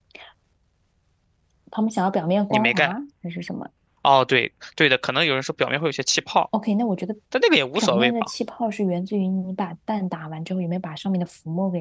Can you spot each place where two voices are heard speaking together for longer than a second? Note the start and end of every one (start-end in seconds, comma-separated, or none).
none